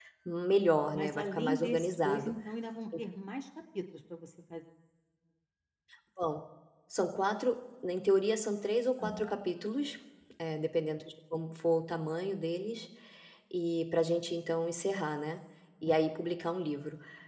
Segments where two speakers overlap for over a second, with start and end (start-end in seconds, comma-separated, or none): 0.9-2.3